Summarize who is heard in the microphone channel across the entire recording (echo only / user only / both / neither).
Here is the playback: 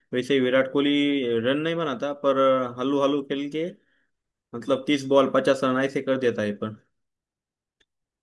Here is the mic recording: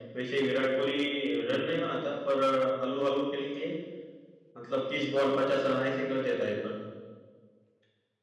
echo only